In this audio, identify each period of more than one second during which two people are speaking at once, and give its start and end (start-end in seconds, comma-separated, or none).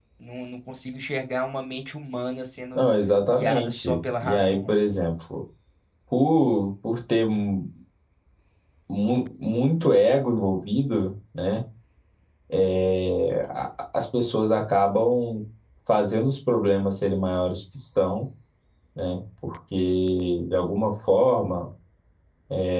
3.3-4.8